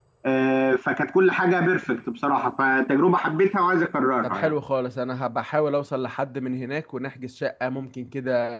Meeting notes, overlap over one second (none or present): none